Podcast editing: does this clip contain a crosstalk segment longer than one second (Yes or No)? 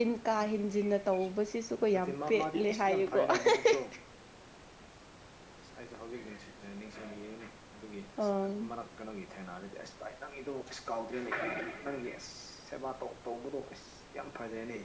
Yes